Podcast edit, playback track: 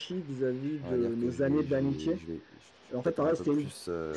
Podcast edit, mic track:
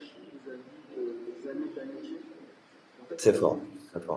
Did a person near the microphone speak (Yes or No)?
Yes